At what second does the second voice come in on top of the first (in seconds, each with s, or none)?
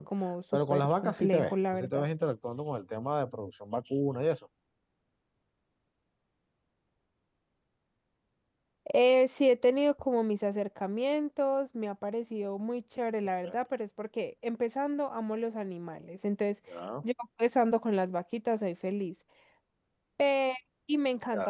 0.7 s